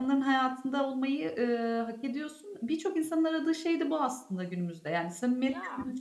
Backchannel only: Yes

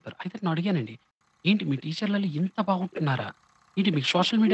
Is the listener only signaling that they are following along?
No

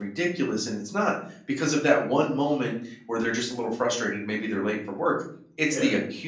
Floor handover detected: No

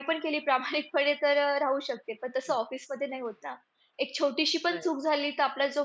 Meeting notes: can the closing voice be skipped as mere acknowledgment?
Yes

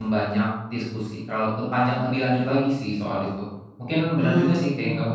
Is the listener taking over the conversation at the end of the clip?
No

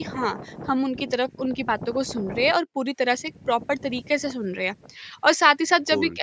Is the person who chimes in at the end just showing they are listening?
Yes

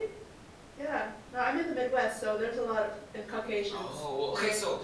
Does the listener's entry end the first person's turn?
Yes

